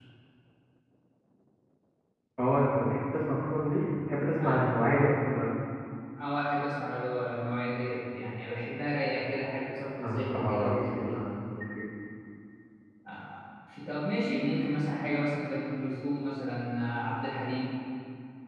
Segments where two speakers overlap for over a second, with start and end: 10.0-11.2

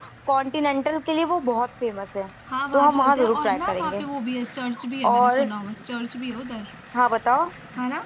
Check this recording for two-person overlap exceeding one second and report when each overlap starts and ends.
2.7-4.0

